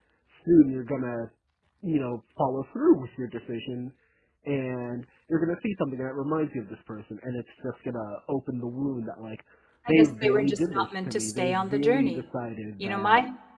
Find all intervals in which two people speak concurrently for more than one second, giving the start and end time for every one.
9.9-12.2

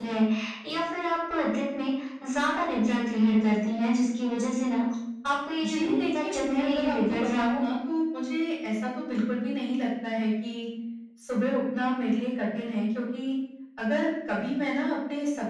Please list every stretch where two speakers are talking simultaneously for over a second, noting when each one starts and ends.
5.6-7.6

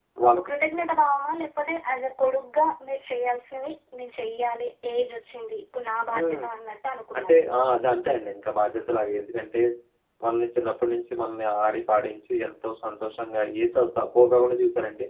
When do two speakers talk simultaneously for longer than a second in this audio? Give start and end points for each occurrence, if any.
none

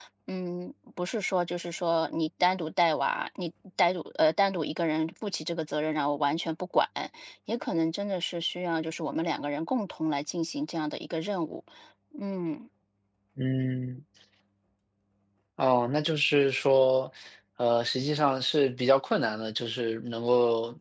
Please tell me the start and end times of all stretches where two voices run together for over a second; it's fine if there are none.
none

